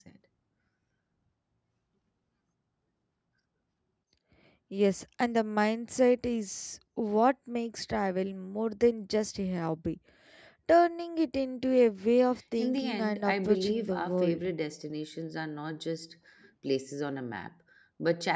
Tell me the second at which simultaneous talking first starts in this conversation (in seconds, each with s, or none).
12.6 s